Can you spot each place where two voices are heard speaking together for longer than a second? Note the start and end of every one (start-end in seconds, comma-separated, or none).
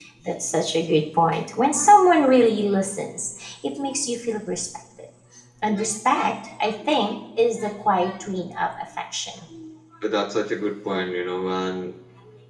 none